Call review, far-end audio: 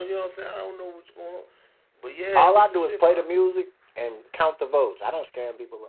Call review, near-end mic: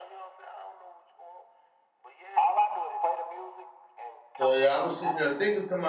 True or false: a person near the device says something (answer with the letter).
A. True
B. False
A